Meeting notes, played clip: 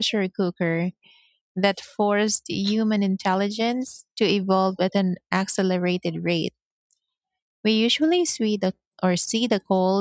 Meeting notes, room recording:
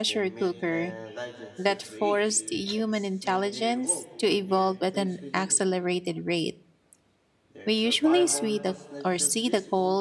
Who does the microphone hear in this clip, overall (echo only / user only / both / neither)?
both